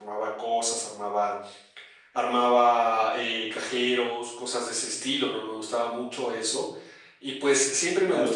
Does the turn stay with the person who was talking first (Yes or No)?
Yes